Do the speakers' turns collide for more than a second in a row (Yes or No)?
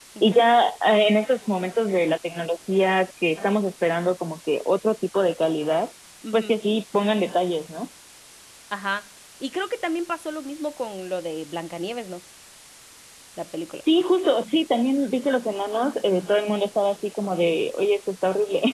No